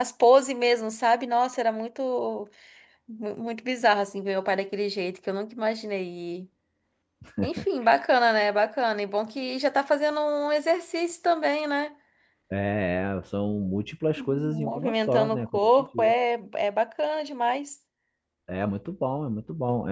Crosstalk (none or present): present